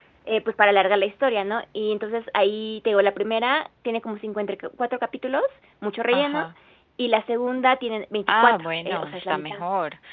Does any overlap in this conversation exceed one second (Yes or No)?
Yes